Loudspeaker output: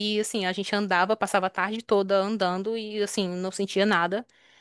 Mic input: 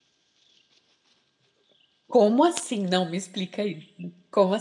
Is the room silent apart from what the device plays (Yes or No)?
No